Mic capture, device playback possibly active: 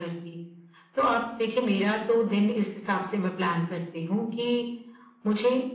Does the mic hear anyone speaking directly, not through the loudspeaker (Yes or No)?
No